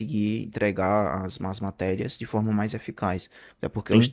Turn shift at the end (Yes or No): No